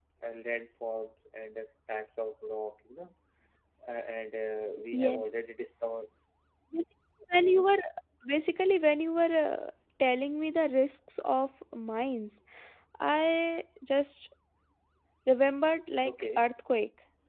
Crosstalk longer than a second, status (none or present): none